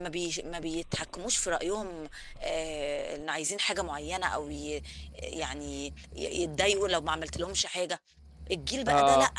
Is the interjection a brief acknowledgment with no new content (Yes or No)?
Yes